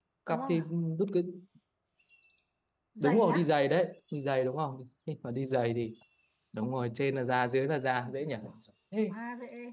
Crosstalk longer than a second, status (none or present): none